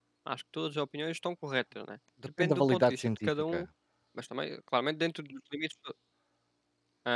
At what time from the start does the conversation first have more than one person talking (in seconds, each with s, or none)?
2.4 s